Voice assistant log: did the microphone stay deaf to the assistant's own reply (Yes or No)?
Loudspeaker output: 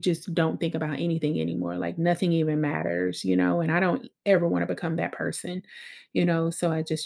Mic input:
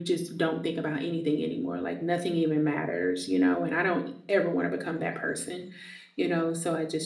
No